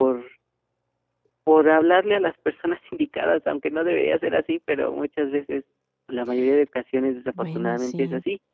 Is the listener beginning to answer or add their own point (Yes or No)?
No